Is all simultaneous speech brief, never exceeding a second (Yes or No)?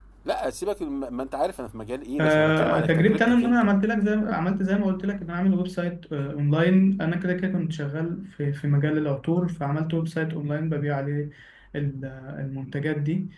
No